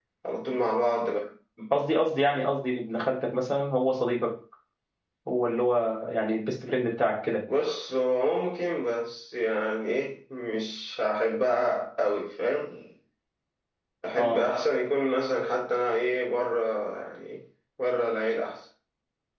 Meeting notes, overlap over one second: none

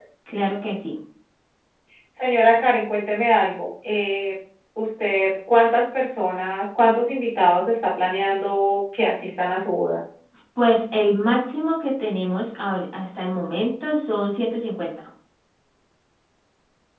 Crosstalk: none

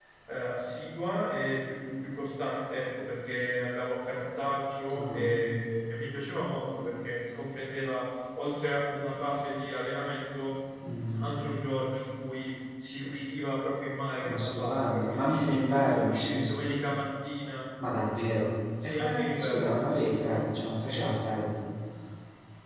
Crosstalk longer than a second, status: present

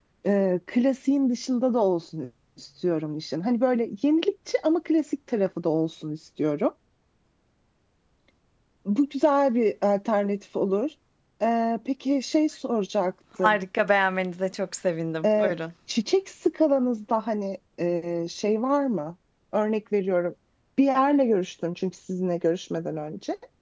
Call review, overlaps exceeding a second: none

